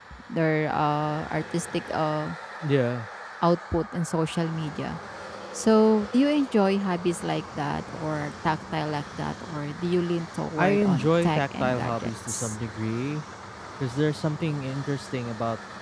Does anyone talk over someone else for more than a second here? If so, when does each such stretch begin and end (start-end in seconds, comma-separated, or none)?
10.6-12.6